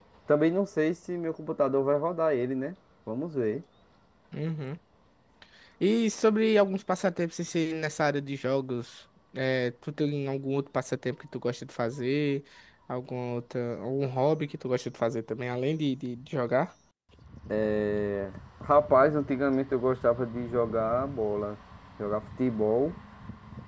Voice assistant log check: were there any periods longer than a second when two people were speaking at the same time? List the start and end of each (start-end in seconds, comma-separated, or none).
none